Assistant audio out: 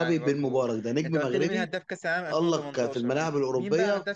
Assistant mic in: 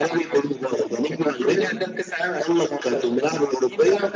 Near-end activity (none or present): none